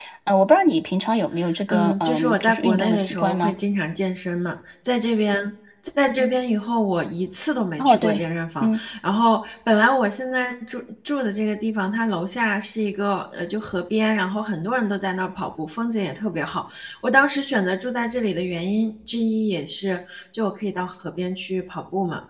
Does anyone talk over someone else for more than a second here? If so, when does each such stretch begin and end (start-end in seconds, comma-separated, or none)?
1.7-3.5